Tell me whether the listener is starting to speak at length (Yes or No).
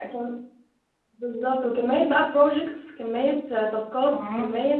No